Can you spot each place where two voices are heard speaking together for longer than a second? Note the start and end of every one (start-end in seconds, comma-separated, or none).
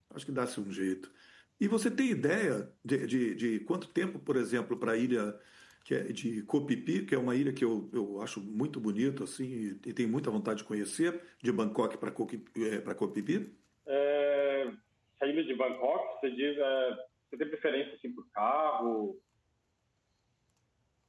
none